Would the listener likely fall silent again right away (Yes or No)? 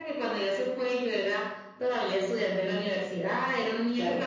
Yes